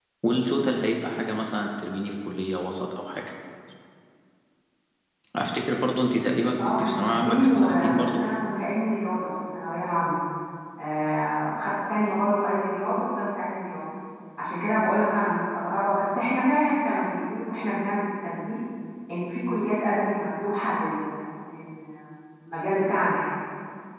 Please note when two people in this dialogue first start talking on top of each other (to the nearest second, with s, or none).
7 s